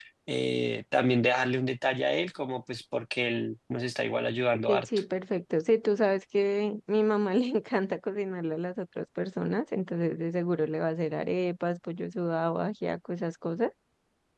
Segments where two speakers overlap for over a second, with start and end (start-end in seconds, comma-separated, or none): none